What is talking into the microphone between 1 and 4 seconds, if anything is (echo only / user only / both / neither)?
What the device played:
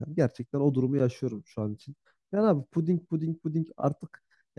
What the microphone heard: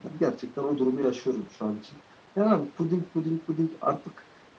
echo only